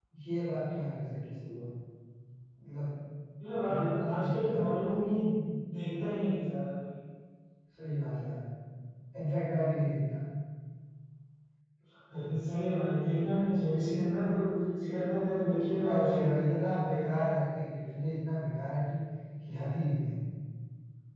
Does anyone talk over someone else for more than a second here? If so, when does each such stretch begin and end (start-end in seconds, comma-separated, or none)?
3.6-4.9